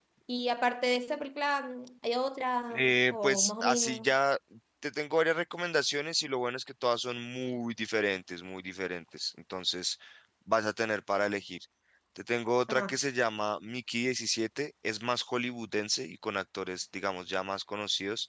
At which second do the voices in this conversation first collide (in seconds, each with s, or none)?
2.7 s